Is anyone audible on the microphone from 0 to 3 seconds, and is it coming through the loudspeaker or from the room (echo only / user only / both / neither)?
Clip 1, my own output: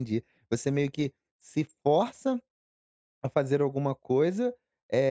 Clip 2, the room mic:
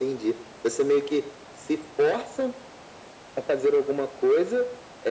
echo only